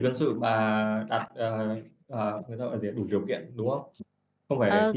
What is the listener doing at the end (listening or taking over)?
taking over